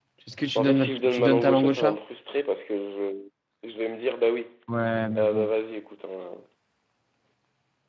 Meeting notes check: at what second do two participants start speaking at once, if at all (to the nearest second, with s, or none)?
1 s